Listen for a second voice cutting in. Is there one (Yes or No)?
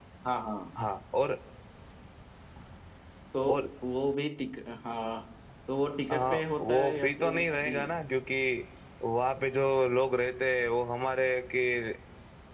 Yes